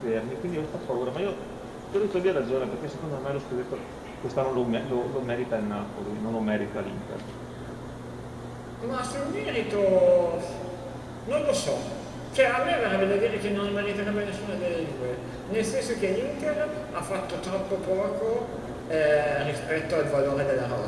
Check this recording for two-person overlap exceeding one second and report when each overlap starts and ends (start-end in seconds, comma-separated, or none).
none